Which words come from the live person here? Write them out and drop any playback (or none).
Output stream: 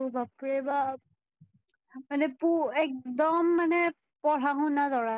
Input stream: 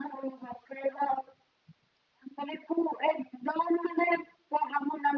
none